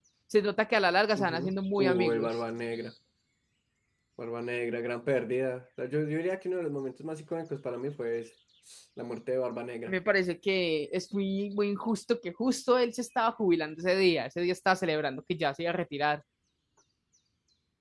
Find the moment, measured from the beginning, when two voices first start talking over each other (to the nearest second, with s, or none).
1 s